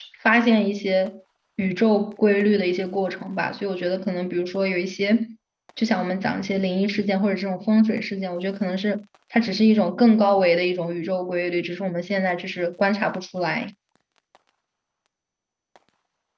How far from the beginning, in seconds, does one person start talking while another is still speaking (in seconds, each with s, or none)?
none